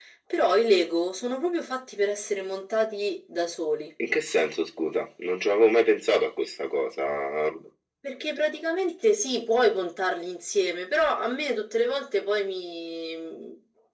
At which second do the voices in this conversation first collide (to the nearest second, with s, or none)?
none